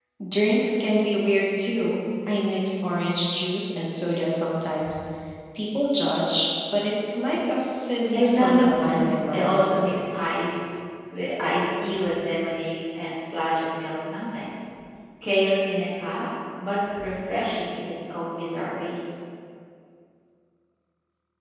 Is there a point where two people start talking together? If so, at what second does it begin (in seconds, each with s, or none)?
8.1 s